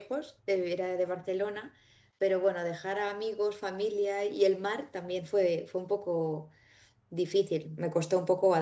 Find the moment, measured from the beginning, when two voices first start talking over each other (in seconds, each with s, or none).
none